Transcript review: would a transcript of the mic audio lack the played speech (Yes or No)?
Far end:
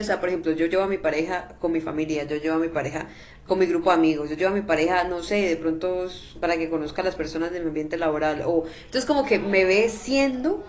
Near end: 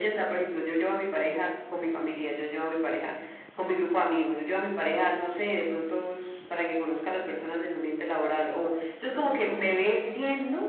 No